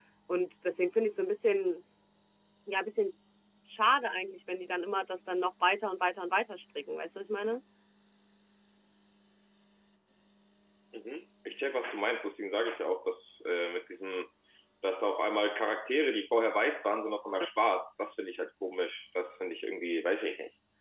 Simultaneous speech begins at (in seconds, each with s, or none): none